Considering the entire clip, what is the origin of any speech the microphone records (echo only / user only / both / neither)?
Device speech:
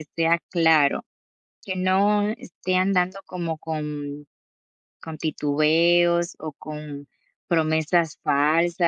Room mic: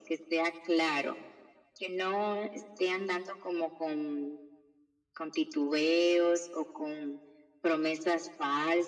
echo only